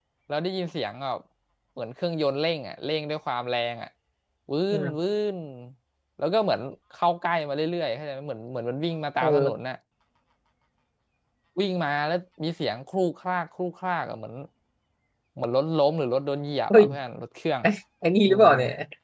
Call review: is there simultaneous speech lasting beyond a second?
No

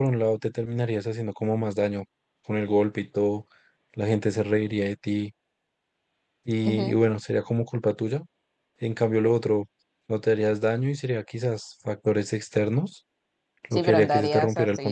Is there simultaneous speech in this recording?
Yes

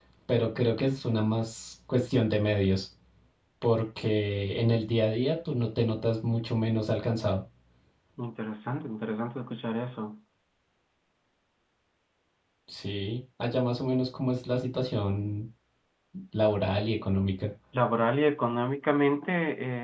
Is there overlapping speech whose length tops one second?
No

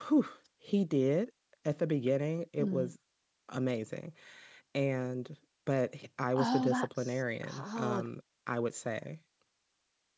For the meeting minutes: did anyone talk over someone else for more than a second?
Yes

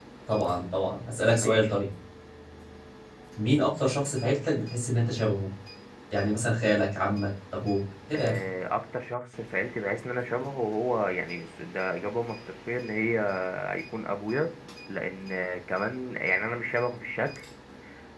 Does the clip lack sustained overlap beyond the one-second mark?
Yes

